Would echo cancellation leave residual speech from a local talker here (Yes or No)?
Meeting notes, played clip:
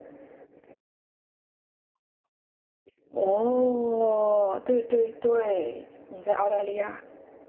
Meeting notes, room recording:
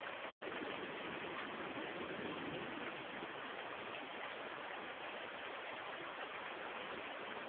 No